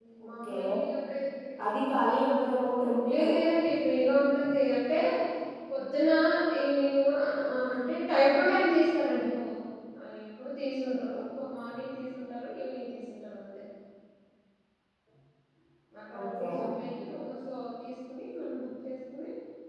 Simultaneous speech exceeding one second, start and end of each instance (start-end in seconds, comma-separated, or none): none